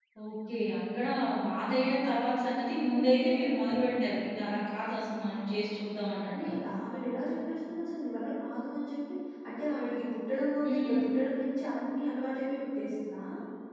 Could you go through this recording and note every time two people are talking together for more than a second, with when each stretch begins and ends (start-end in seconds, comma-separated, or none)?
none